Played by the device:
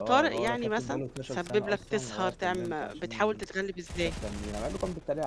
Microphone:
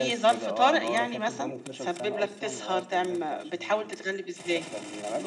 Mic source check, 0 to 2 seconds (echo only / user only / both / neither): echo only